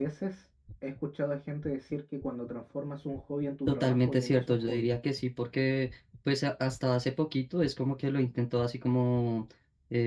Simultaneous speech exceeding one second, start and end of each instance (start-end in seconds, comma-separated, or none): 3.7-4.9